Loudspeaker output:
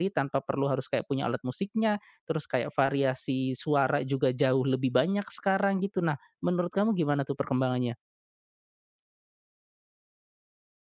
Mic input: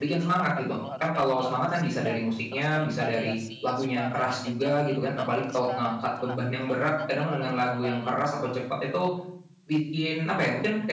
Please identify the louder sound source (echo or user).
user